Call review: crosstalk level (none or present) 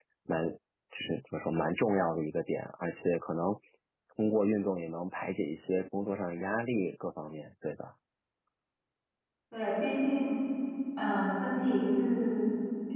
none